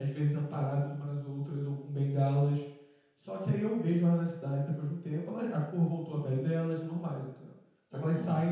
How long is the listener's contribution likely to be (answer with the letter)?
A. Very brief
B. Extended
A